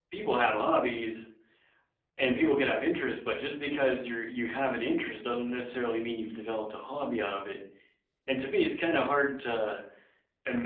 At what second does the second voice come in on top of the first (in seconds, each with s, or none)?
none